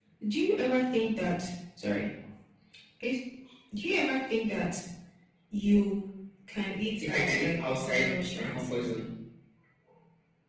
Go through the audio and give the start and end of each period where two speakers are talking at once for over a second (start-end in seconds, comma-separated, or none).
7.0-8.7